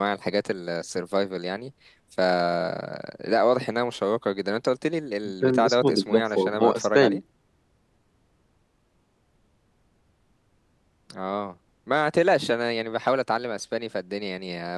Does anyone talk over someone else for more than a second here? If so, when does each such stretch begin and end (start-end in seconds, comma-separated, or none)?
5.4-7.2